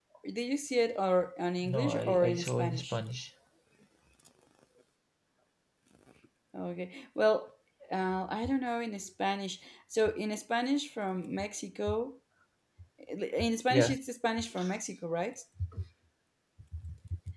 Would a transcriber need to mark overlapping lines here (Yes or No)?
Yes